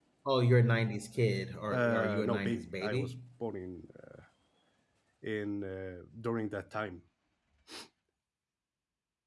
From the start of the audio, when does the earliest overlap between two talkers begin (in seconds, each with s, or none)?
1.7 s